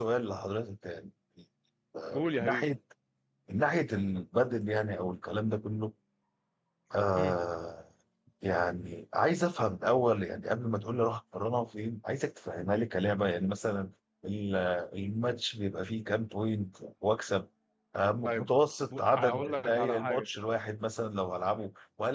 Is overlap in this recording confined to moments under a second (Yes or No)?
No